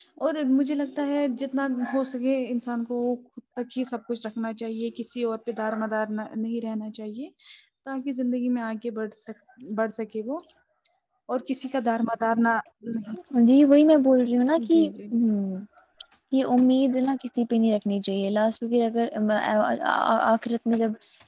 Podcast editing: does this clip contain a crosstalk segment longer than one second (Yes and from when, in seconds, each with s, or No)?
No